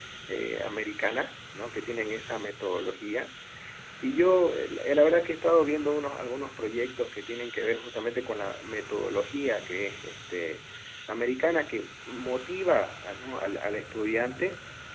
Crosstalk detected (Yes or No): No